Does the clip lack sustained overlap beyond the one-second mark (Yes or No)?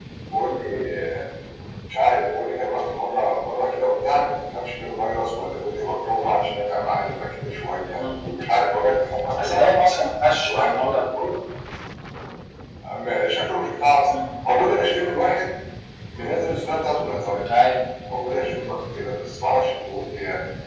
Yes